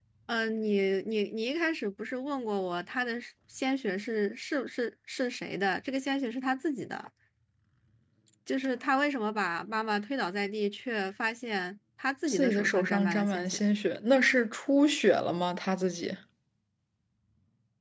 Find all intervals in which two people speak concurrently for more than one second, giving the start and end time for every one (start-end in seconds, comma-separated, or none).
12.3-13.6